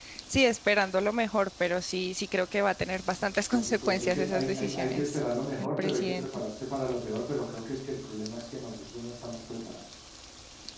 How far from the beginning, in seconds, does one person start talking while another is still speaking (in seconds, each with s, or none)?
3.5 s